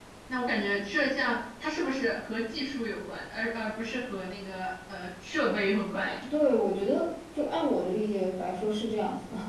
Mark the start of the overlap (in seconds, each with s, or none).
none